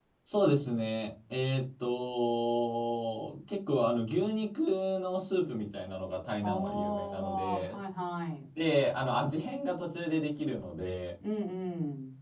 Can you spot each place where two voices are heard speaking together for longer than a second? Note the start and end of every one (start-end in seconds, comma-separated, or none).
6.4-7.8